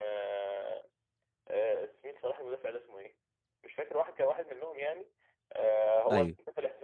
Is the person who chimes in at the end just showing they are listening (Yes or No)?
Yes